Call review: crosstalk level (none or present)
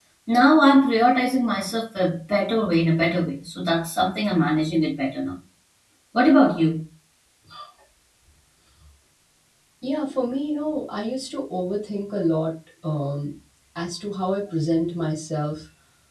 none